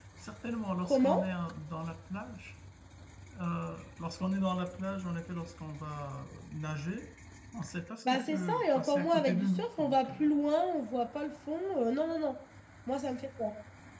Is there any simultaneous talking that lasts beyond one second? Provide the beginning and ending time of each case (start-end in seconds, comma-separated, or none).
8.0-10.3